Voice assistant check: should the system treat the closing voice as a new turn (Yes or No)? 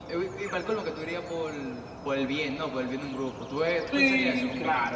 Yes